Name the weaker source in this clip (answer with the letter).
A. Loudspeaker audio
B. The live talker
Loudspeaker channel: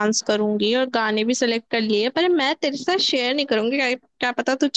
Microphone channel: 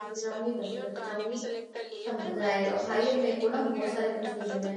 A